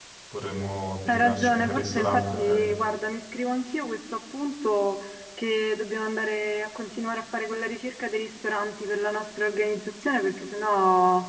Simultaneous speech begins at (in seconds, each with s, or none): 1.1 s